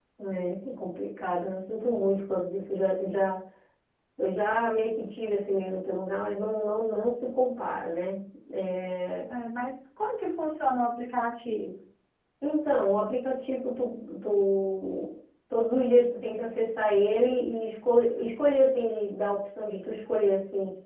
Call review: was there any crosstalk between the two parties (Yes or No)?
No